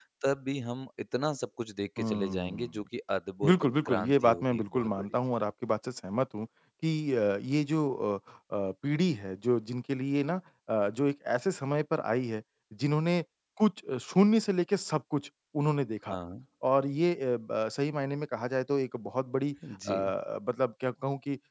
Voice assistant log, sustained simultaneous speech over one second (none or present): present